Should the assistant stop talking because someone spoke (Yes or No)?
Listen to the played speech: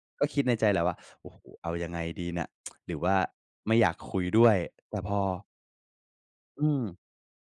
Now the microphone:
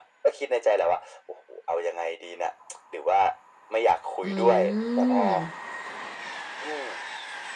Yes